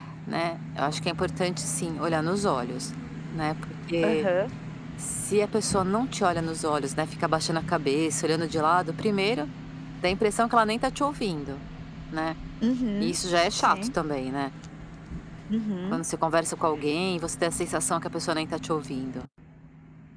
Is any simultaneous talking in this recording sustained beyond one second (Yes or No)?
No